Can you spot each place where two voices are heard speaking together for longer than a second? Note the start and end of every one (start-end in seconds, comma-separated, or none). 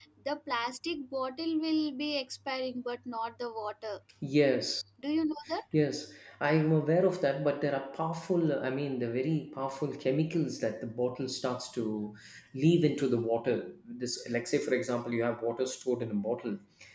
none